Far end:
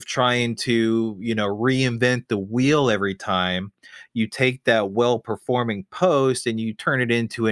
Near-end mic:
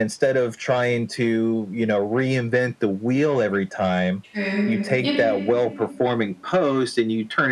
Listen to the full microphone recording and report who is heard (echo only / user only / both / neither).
both